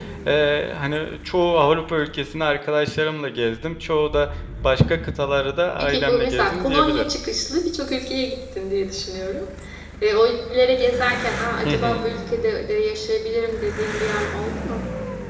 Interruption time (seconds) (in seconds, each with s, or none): 5.8 s